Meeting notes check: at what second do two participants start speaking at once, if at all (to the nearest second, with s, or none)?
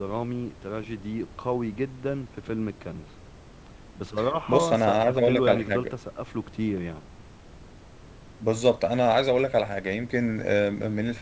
4 s